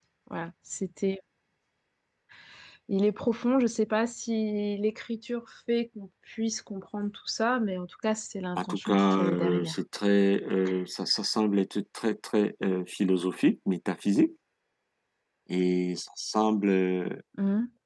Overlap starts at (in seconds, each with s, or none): 8.6 s